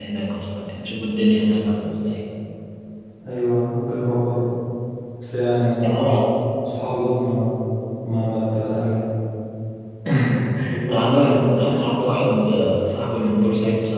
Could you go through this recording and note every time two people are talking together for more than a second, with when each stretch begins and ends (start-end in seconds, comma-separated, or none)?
10.9-12.4